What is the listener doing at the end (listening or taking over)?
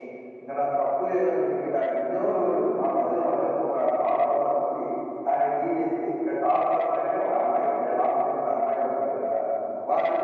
taking over